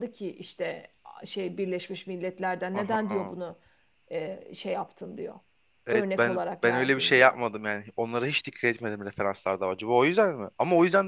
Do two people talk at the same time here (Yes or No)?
Yes